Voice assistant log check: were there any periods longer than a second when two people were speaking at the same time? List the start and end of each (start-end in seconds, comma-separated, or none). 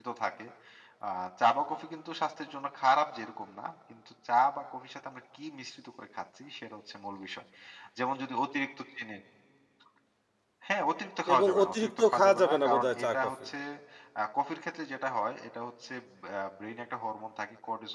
11.3-13.5